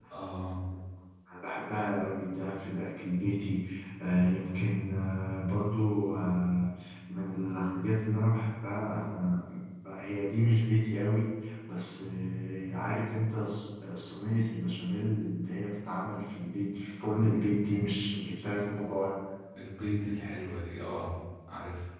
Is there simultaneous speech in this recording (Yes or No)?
No